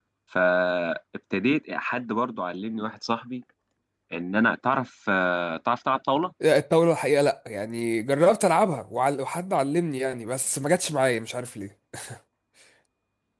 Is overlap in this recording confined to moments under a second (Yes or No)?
Yes